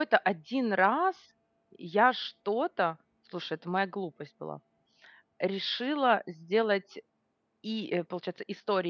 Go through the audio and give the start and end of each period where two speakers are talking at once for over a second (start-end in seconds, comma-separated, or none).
none